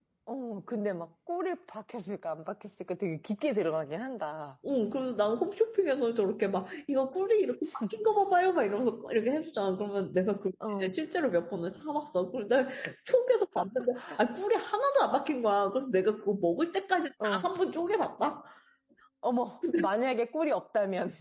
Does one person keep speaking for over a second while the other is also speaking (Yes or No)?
No